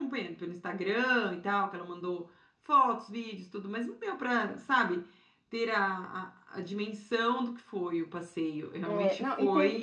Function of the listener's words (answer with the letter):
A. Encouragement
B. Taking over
B